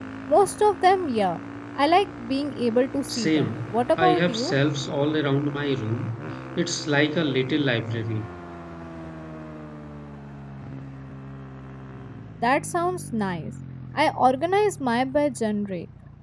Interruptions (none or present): present